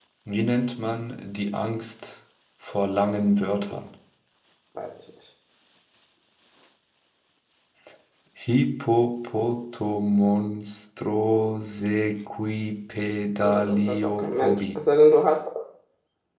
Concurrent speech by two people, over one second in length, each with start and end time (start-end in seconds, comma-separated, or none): 13.4-14.8